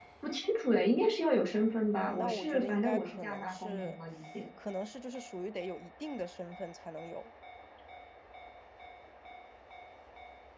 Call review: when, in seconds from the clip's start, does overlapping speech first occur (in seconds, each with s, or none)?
1.9 s